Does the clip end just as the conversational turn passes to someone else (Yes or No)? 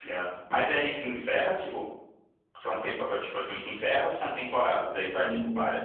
Yes